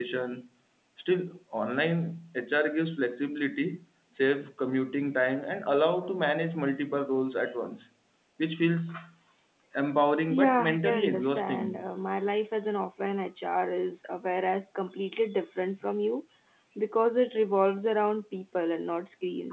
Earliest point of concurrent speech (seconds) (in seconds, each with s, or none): 10.3 s